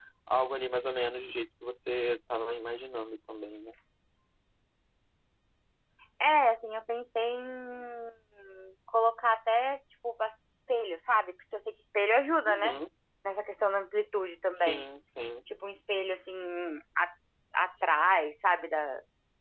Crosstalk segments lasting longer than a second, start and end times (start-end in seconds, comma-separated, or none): none